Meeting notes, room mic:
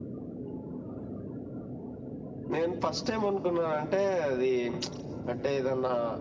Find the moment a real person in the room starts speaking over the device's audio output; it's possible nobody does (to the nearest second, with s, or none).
3 s